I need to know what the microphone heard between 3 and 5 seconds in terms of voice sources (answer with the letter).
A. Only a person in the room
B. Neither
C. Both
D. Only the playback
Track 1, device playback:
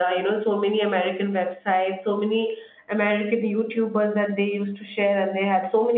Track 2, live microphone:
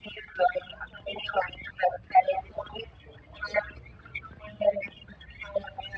D